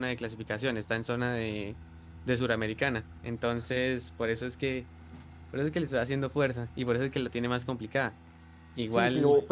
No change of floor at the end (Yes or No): No